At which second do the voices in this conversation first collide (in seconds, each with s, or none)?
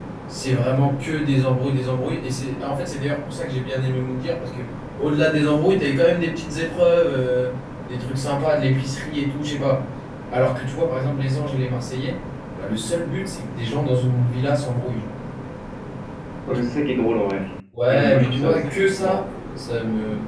17.9 s